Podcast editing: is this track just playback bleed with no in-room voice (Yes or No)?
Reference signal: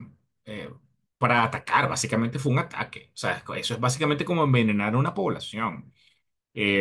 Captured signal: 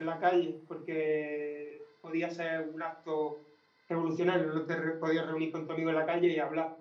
No